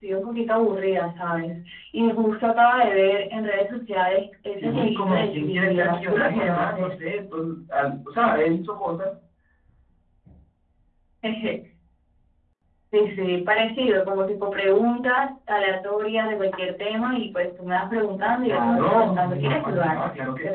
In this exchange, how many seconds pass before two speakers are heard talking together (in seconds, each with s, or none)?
4.5 s